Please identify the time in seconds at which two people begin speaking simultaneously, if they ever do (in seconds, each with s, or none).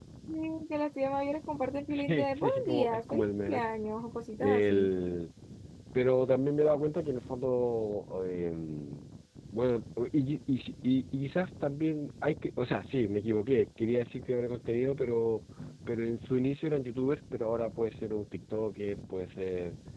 1.9 s